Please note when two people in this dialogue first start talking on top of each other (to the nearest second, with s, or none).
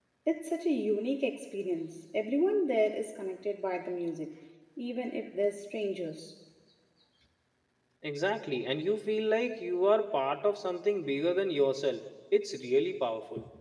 none